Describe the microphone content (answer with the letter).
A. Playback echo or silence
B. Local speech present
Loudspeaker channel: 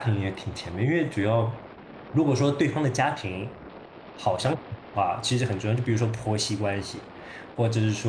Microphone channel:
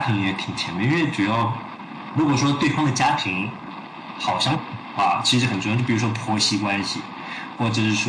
A